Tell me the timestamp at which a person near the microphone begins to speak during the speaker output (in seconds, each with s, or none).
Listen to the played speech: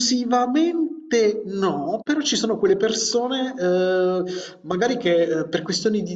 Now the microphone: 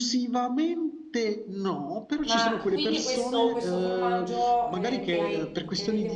2.2 s